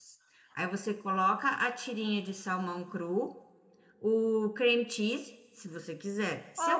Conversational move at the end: taking over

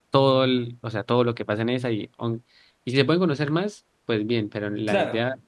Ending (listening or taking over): listening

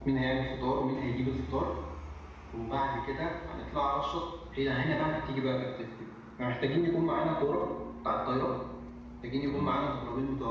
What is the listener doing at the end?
listening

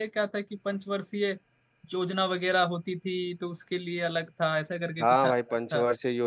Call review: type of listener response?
taking over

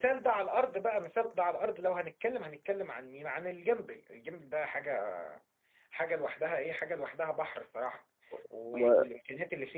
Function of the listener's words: listening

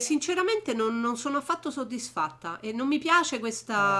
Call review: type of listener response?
listening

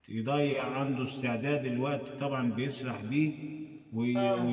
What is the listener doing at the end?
listening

